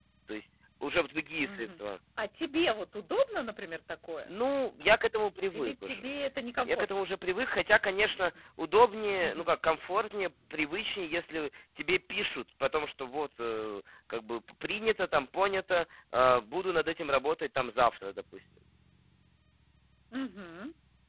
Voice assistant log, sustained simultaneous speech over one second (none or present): none